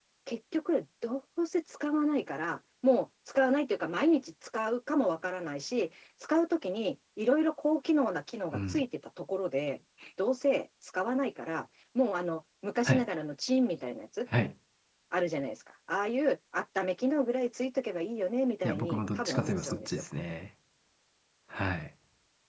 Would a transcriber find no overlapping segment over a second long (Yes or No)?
No